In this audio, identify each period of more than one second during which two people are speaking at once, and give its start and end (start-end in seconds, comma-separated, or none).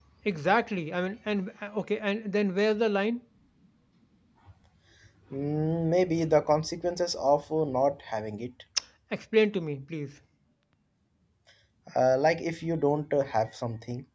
none